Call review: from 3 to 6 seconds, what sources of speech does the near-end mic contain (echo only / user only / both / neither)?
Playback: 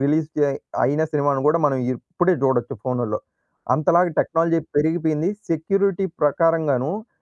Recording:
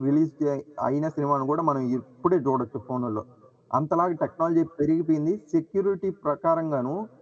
echo only